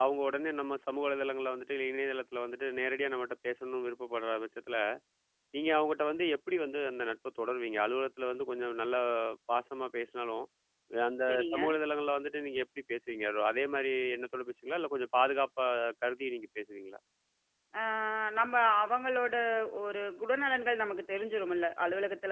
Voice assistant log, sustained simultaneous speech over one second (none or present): none